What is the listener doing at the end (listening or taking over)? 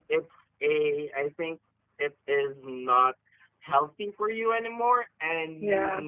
listening